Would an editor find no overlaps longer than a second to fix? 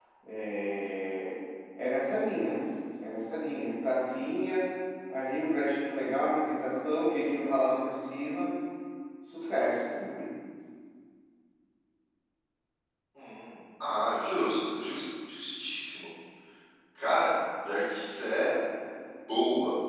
Yes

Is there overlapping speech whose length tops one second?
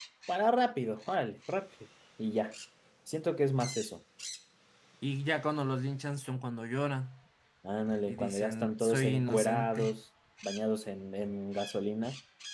Yes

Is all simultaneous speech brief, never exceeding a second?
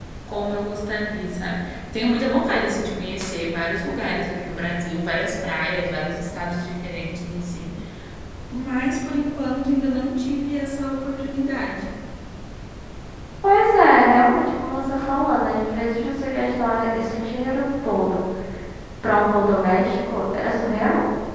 Yes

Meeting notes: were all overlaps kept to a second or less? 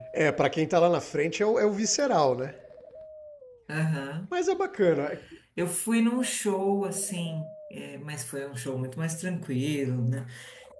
Yes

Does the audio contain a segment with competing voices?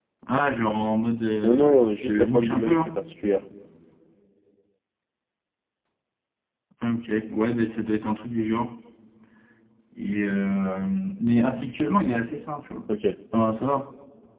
Yes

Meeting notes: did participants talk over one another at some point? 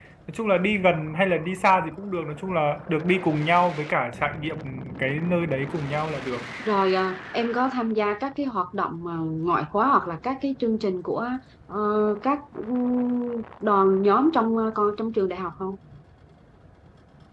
No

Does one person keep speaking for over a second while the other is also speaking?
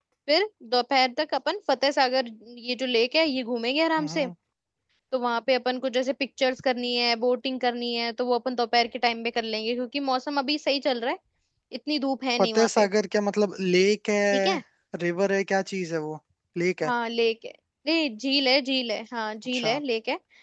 No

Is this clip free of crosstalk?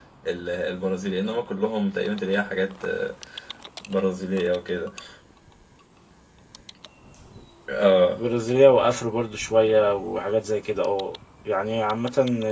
Yes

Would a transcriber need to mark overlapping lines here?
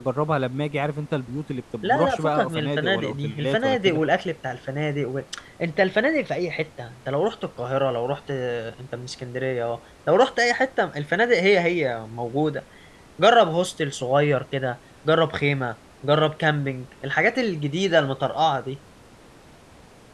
Yes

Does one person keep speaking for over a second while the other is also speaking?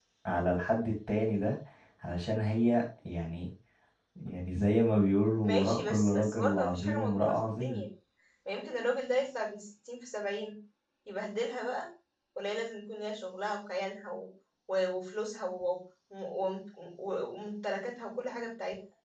Yes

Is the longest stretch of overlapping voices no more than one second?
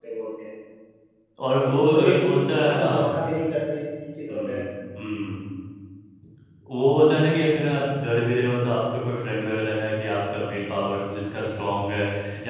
No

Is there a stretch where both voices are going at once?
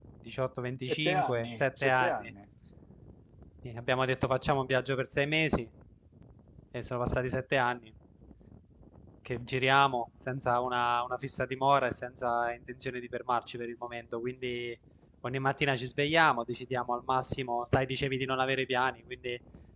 Yes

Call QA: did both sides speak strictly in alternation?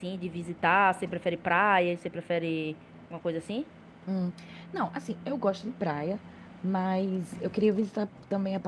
Yes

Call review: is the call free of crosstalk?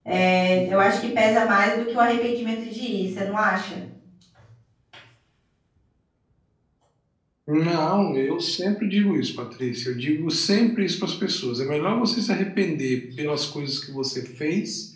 Yes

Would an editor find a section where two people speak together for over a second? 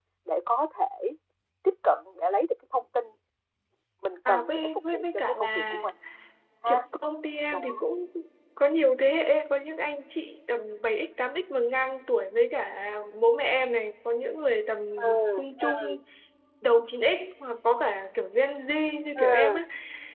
Yes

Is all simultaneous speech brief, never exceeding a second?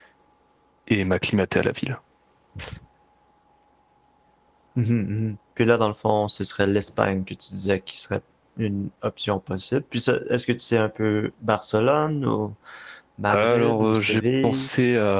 No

